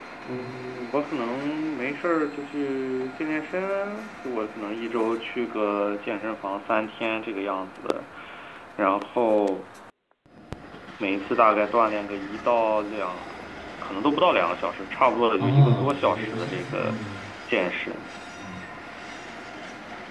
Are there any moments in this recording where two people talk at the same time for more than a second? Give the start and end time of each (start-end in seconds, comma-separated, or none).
15.4-17.0